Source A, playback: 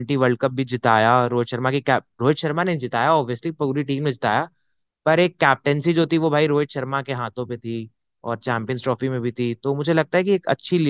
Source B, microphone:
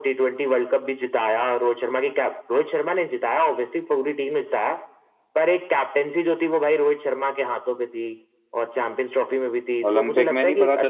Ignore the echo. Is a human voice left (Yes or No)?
Yes